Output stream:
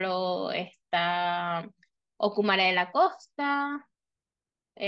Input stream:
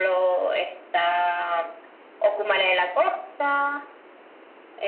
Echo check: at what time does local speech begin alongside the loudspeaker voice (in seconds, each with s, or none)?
none